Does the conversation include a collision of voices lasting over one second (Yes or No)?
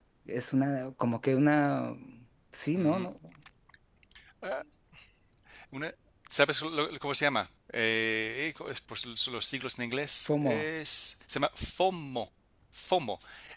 No